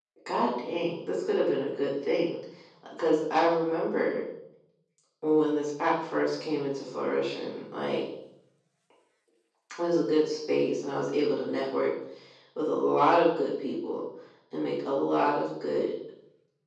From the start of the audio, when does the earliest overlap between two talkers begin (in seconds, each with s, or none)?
none